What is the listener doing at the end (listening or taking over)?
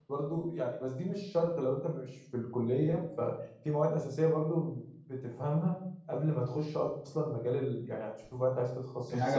taking over